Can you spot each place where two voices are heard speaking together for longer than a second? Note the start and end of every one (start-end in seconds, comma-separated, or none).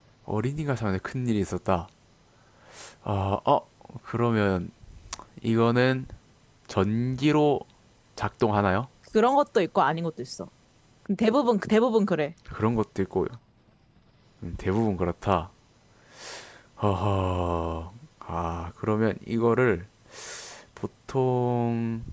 none